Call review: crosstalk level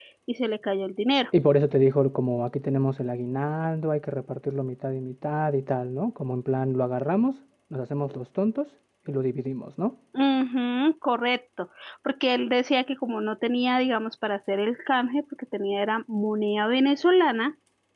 none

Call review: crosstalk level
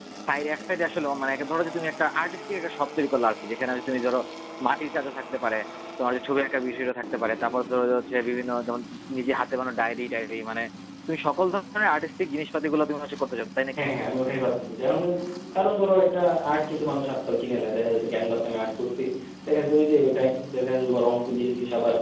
none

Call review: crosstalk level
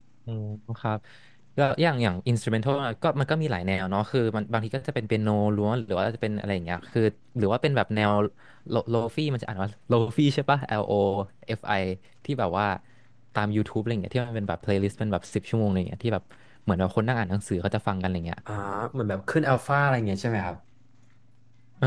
none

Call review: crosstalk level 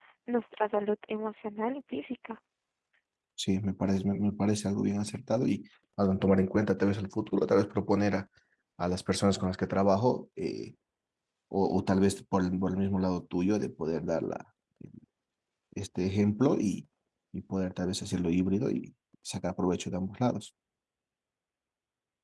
none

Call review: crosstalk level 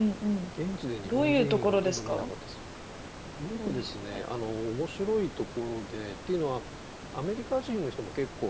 present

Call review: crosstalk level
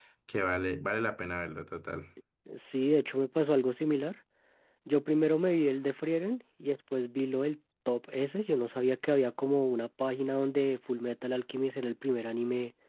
none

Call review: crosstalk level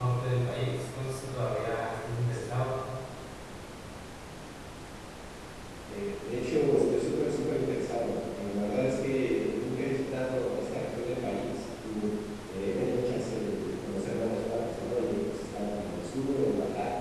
none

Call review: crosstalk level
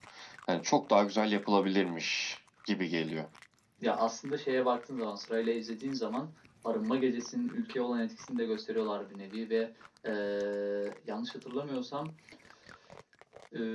none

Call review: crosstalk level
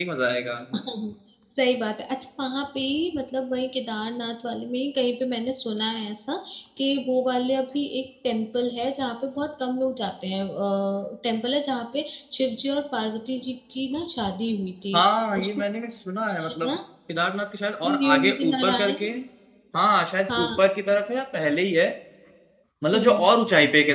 present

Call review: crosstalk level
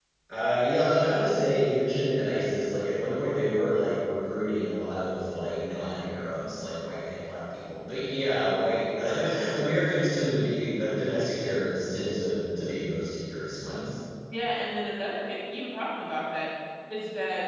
none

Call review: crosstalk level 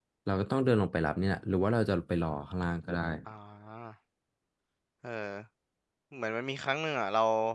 none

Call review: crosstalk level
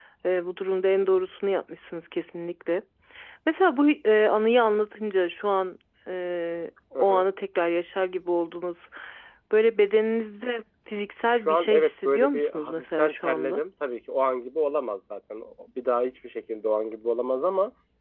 present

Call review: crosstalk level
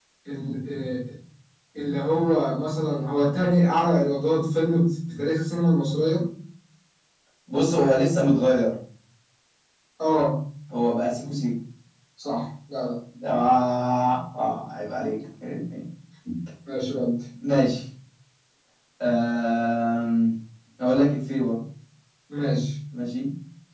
none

